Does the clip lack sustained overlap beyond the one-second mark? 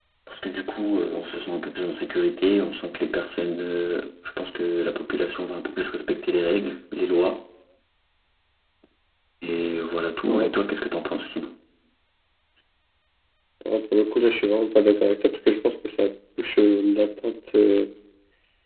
Yes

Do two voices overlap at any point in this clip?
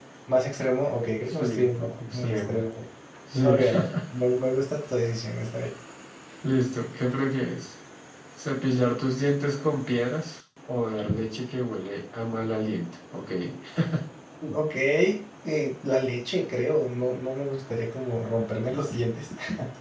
Yes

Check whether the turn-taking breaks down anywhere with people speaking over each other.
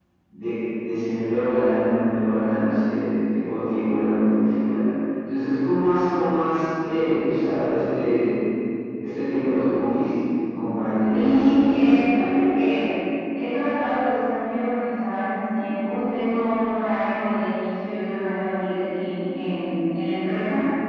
Yes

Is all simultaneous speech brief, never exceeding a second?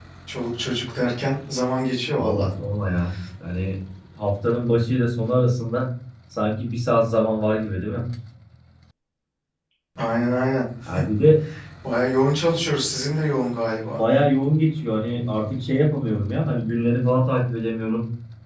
Yes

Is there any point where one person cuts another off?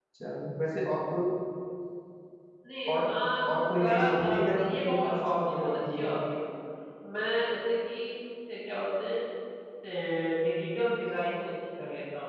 Yes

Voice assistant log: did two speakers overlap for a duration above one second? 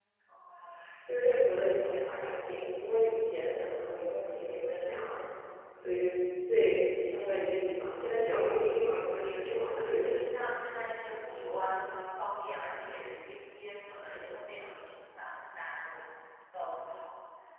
No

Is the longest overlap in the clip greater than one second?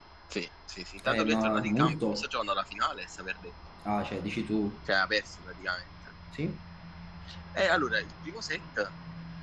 Yes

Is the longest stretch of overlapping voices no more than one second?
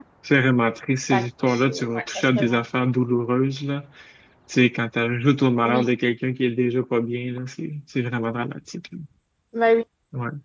No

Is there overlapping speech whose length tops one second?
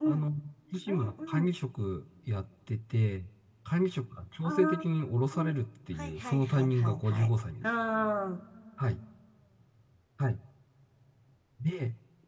Yes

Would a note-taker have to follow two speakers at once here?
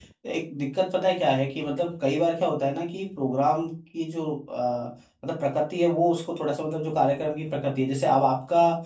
No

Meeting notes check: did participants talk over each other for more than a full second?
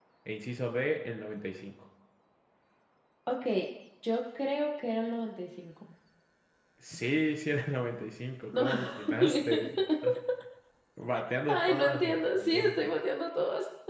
Yes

